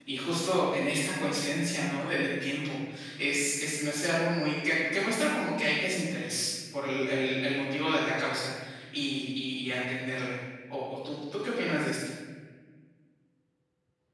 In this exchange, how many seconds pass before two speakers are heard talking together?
none

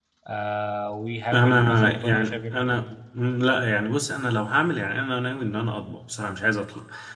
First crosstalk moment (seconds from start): 1.3 s

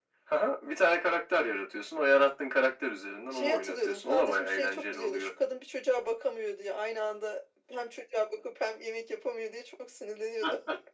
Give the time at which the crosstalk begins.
3.3 s

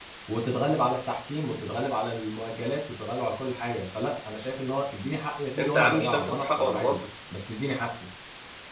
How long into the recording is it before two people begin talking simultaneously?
5.6 s

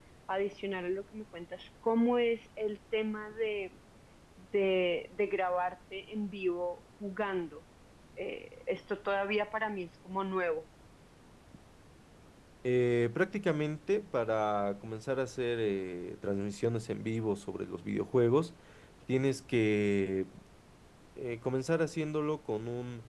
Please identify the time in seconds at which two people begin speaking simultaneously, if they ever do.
none

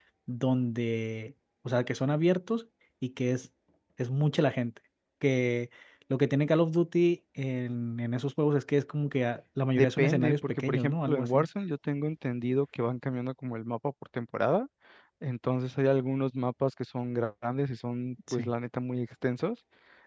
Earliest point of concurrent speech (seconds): 9.8 s

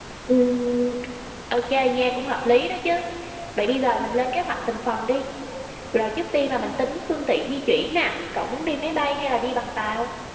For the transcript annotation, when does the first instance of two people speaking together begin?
none

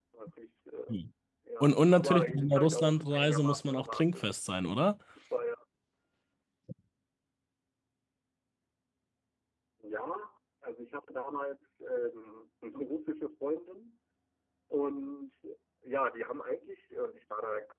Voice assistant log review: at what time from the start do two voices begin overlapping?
1.6 s

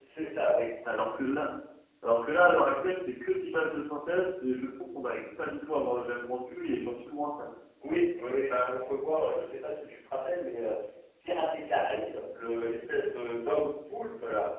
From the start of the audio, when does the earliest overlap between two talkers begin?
none

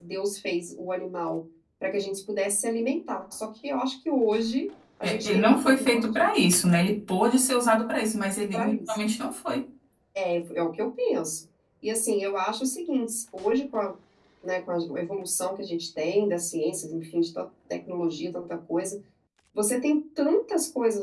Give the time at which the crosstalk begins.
5.0 s

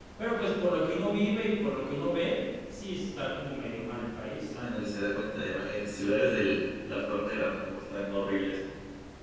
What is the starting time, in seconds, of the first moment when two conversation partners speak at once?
none

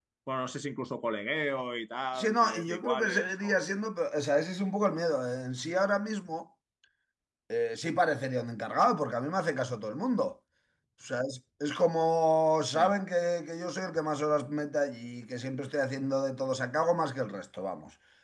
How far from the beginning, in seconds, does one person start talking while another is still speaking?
2.1 s

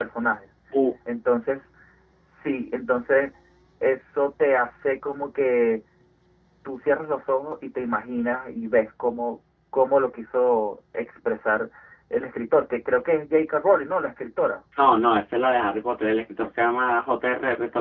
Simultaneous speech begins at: none

